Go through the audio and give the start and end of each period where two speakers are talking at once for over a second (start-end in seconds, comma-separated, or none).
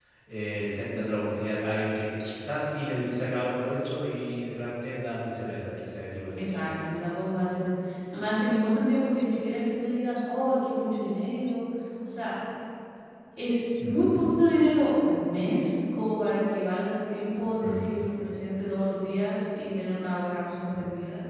none